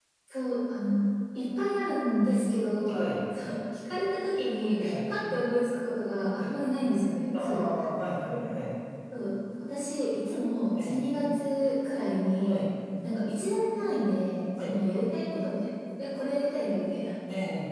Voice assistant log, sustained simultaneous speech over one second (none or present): none